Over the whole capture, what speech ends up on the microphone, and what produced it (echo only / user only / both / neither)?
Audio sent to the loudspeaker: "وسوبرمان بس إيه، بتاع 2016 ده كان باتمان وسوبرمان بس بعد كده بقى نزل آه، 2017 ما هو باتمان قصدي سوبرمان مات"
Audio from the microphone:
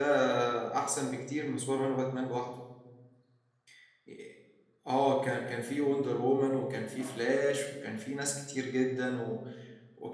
user only